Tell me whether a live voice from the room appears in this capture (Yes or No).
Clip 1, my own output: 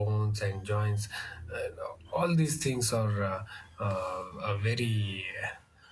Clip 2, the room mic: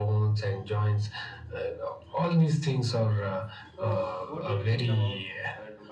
Yes